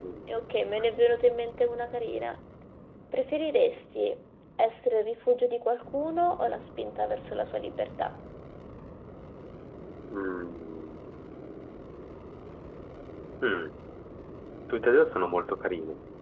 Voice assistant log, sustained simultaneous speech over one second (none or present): none